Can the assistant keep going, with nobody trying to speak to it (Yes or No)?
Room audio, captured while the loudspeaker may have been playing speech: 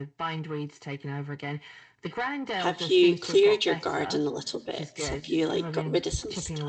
No